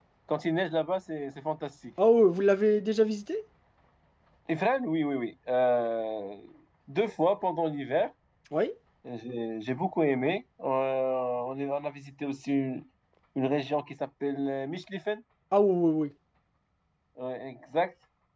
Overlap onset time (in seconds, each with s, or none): none